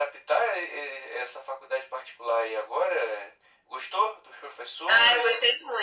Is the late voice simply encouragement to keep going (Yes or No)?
No